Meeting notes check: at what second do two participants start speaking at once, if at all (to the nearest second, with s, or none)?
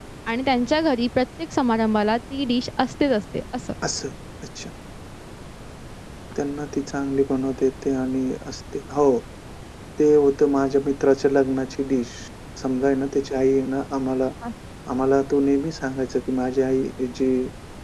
none